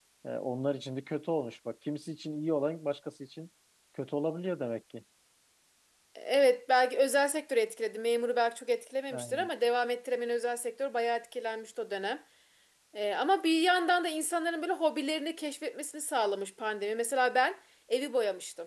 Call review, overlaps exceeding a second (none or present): none